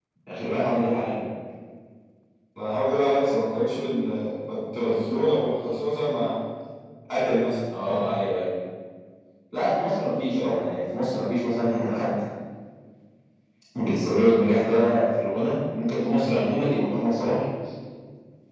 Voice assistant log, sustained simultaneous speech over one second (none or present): none